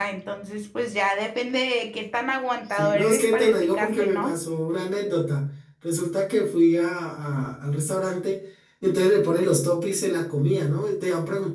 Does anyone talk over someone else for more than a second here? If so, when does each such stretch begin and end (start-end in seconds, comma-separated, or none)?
2.7-4.3